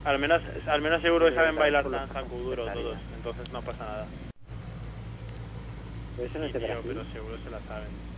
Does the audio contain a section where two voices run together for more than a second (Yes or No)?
Yes